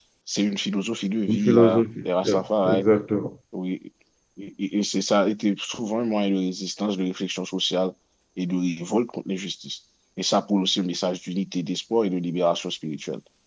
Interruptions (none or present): present